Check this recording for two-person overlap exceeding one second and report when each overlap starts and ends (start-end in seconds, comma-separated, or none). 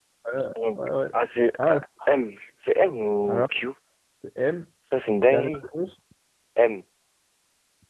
none